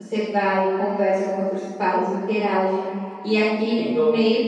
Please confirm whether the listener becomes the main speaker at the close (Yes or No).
No